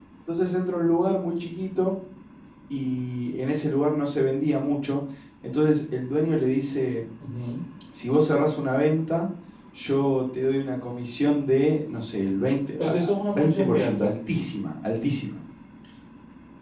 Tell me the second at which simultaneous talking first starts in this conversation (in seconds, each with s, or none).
12.8 s